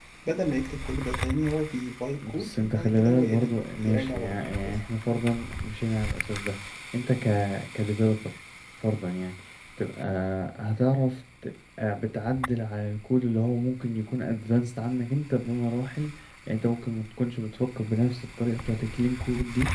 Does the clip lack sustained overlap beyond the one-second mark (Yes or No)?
No